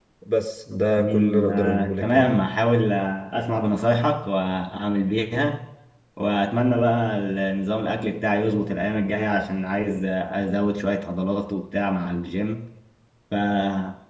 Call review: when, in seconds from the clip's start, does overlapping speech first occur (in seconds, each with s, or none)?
1.0 s